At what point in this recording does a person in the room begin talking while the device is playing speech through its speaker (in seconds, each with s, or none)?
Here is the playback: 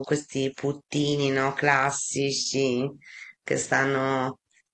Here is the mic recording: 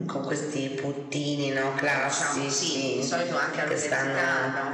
1.8 s